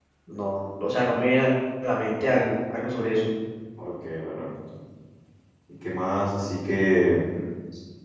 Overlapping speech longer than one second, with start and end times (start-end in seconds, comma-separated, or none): none